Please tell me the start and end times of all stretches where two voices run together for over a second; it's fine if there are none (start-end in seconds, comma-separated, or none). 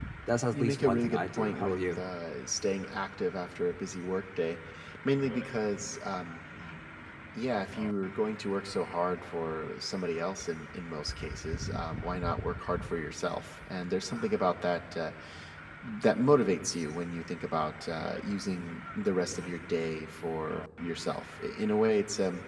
0.5-2.0